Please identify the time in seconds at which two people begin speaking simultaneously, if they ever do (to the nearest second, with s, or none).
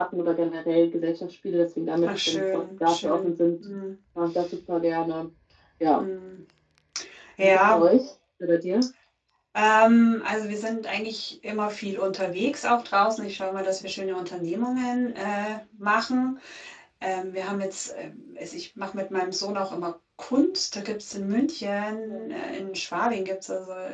2 s